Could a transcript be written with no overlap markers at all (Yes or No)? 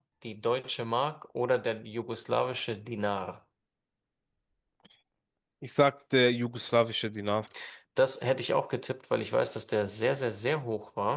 Yes